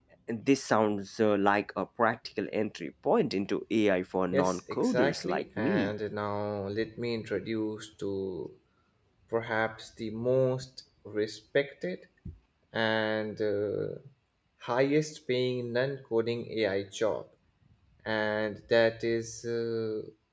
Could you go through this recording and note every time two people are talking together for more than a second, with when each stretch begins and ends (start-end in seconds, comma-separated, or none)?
4.3-5.9